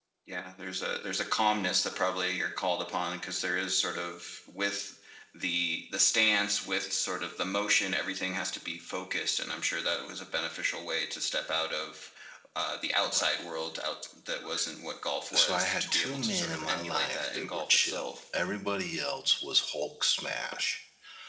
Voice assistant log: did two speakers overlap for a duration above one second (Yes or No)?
Yes